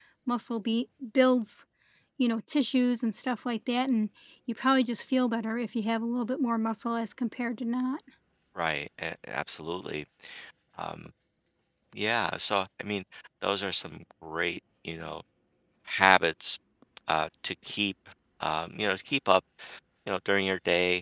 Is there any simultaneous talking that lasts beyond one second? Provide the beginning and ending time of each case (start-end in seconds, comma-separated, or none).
none